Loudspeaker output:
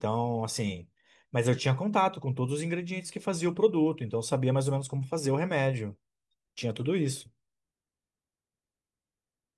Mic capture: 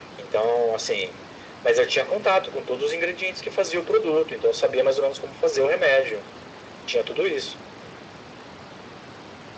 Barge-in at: none

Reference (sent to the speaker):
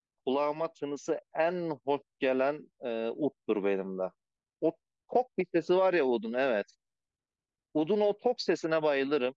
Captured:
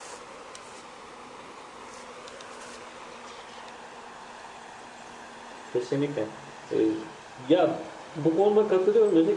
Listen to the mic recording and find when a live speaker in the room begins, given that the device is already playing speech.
5.7 s

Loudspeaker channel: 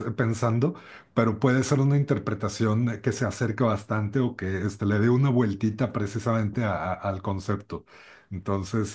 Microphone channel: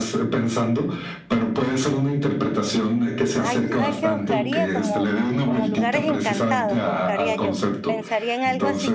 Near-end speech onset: 3.4 s

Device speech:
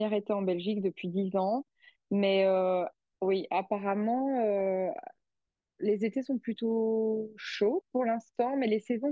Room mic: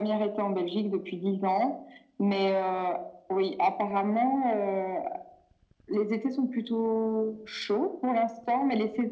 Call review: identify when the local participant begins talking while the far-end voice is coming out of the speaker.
none

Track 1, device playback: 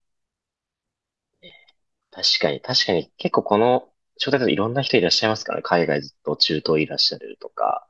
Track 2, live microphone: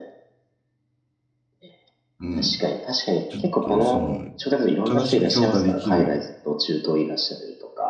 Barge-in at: 2.2 s

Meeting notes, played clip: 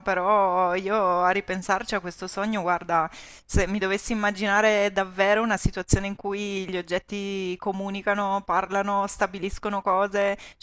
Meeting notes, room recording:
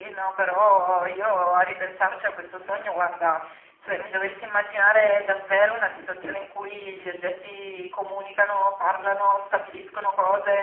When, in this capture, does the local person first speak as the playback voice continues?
none

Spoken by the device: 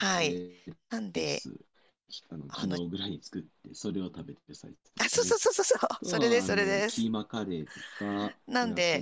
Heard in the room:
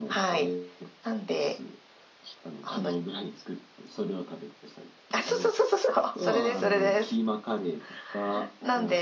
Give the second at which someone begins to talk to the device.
none

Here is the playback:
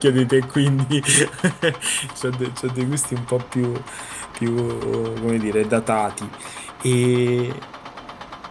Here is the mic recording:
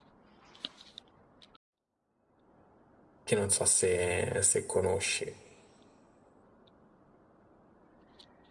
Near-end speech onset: 3.2 s

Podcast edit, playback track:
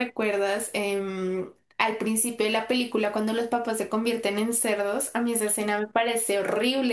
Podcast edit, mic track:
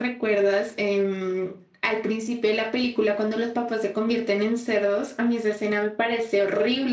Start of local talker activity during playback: none

